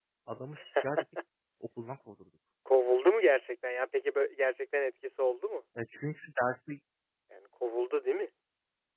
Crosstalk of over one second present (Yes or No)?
No